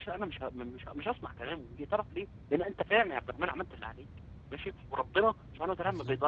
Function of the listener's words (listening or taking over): listening